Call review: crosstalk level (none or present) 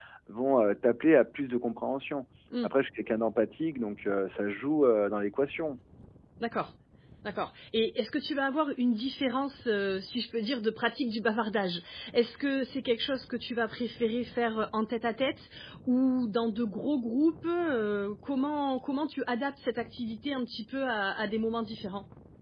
none